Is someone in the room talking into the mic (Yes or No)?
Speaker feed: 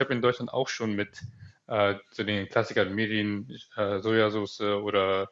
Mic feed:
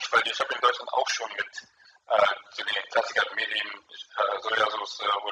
No